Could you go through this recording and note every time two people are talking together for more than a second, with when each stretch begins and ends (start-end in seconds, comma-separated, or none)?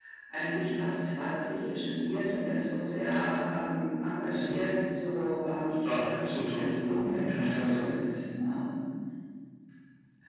5.8-7.8